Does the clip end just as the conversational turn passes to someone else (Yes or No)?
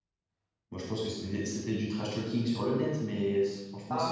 Yes